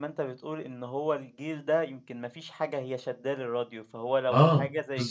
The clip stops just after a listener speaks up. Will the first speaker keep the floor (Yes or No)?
Yes